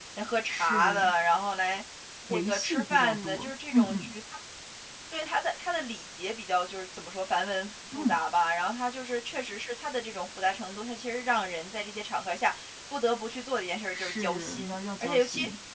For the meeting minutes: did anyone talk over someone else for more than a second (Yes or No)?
Yes